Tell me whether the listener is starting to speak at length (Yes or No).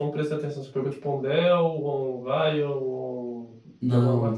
Yes